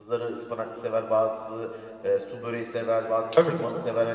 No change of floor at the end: Yes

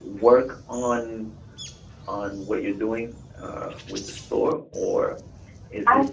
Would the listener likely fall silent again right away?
Yes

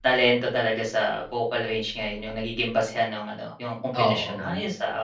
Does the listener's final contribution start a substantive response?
No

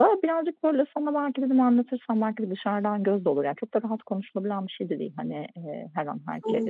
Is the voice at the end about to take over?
No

